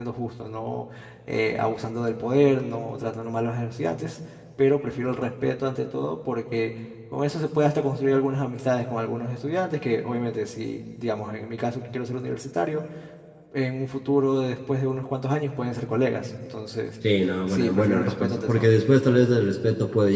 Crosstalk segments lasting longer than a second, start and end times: 17.5-18.7

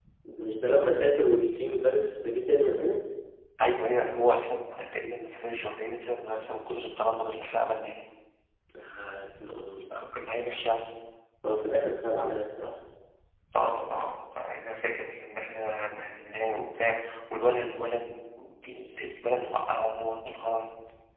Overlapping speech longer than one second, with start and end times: none

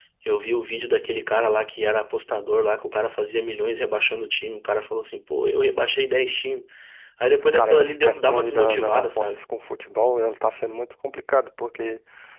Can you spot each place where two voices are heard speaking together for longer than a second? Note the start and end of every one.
7.4-9.4

